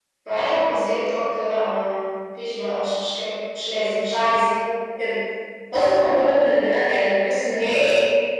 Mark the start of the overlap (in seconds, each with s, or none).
none